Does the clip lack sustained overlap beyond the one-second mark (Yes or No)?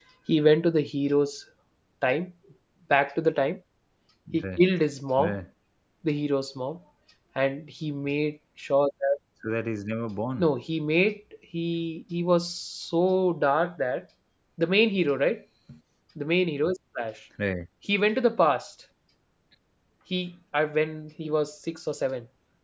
Yes